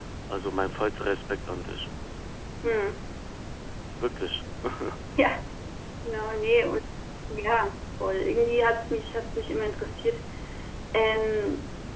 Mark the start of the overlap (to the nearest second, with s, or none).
none